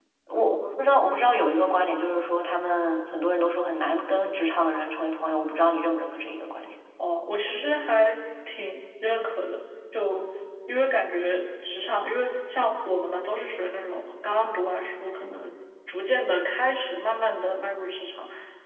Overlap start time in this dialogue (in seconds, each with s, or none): none